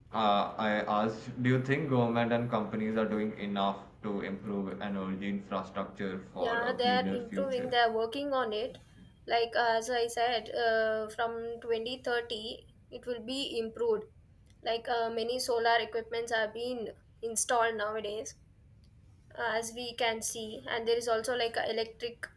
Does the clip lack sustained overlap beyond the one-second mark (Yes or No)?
No